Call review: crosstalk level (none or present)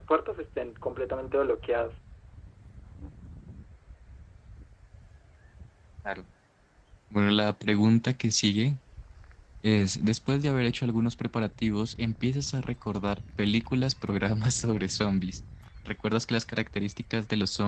none